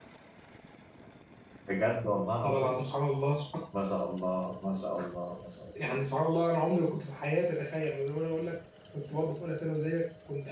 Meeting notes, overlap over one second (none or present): none